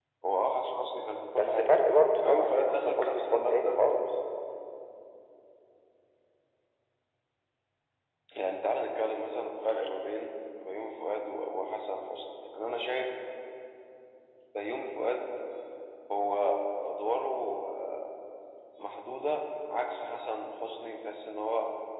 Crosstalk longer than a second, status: present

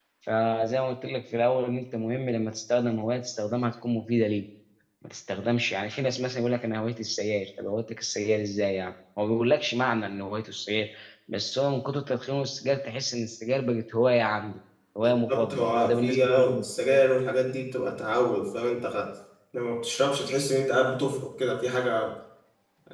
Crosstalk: present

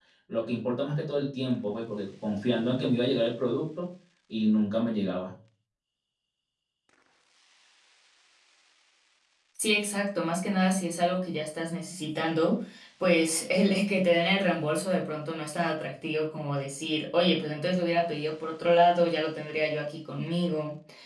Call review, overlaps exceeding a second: none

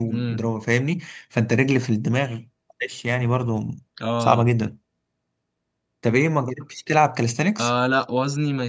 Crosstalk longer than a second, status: none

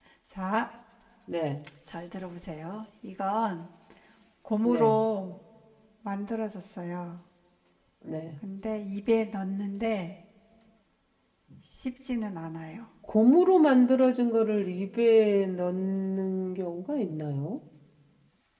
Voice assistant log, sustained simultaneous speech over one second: none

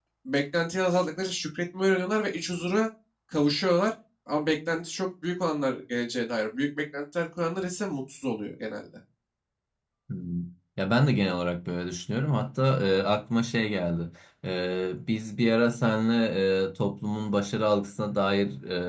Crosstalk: none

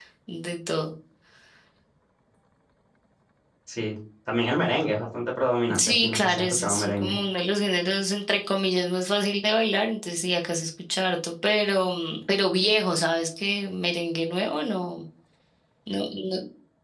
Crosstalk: present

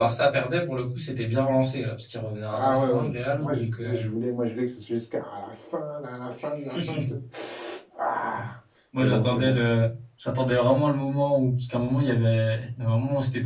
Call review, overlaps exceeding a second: present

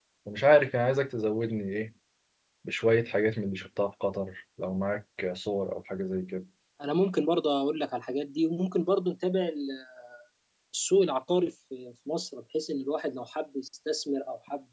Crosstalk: none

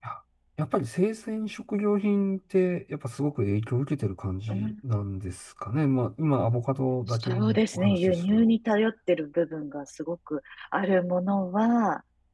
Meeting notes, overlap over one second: present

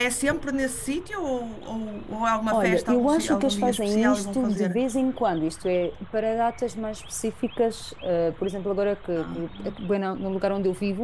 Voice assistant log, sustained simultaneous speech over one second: present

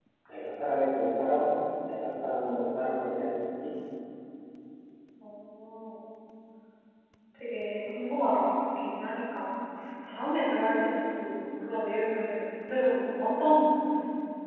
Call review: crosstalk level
none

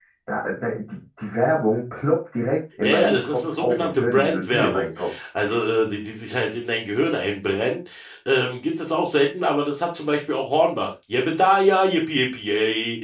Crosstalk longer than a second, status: present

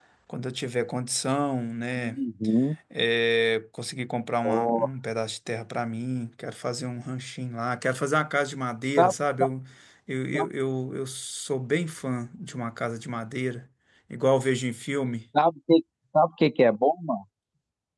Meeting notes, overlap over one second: none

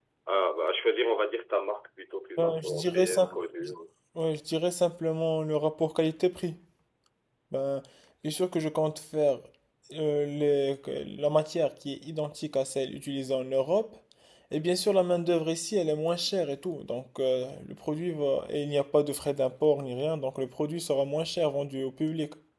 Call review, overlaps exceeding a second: present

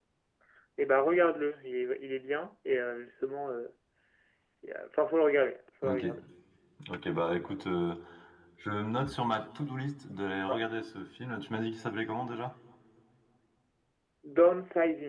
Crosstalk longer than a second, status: none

